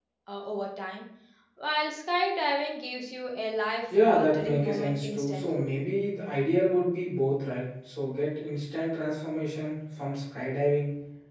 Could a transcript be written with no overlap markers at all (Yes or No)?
No